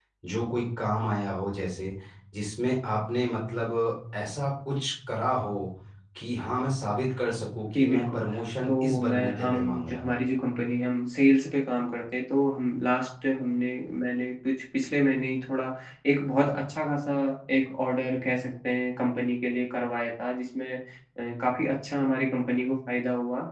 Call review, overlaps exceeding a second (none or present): present